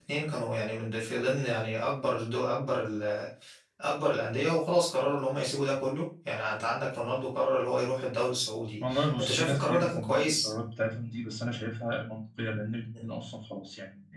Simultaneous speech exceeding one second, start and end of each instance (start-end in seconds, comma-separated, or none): 8.9-10.5